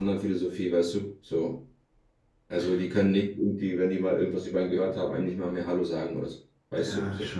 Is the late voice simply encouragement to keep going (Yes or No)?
No